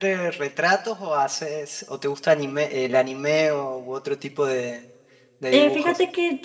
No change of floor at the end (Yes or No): No